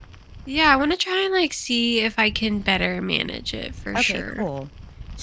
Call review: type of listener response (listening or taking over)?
taking over